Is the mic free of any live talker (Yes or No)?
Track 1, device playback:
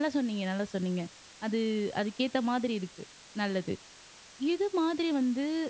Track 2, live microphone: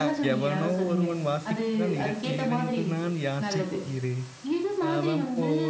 No